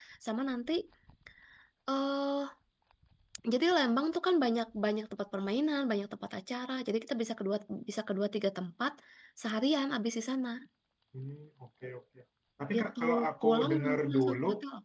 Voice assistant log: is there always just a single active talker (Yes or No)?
No